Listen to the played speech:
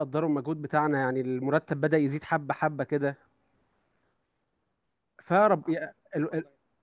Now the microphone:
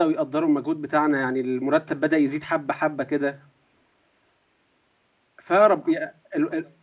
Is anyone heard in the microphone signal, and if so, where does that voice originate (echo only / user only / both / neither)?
echo only